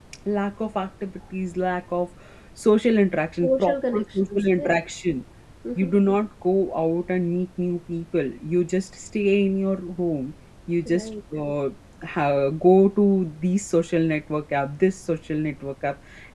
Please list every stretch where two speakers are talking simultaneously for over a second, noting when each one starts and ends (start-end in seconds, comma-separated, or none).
3.4-4.7